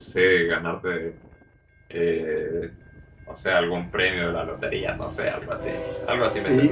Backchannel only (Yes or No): No